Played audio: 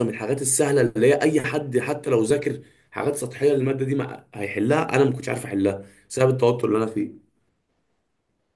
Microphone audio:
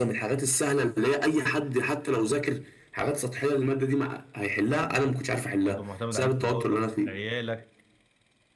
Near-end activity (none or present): present